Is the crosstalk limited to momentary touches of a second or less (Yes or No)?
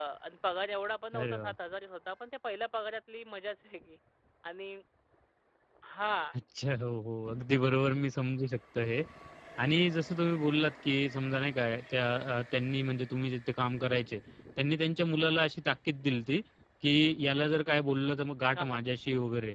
Yes